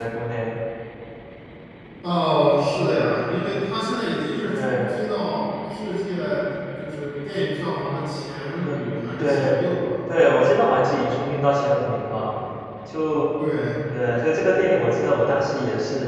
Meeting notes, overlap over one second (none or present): none